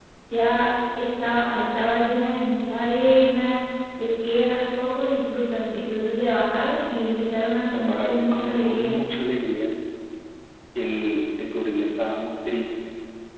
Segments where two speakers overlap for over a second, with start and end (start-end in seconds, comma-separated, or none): 7.7-9.0